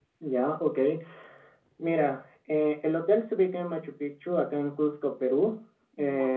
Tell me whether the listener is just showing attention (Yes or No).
Yes